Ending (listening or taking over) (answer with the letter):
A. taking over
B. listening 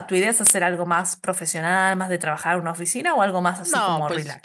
A